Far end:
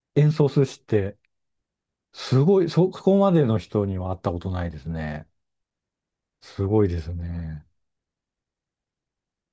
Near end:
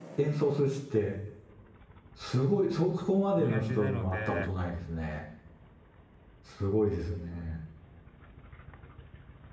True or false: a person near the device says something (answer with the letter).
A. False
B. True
B